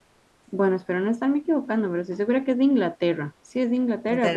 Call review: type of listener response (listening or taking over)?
taking over